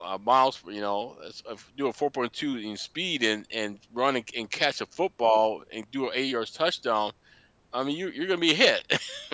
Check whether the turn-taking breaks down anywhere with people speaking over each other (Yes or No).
No